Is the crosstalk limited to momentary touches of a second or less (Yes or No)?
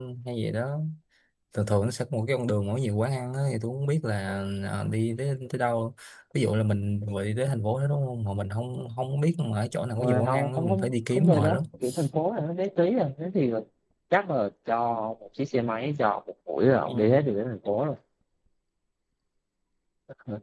No